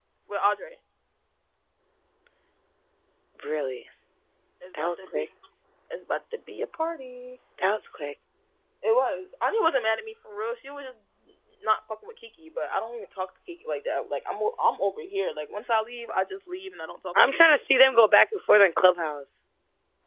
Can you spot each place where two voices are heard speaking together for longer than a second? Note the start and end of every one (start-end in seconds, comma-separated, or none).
none